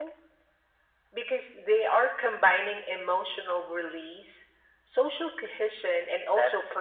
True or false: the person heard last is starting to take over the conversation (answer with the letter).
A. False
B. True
B